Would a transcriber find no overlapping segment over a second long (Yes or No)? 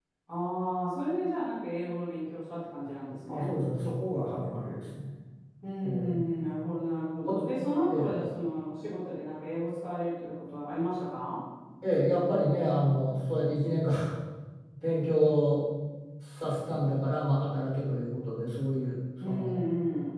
Yes